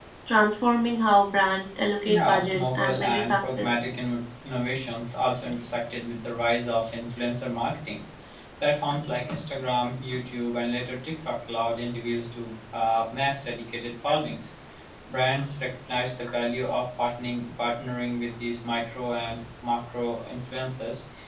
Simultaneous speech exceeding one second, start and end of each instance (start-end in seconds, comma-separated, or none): 2.1-3.8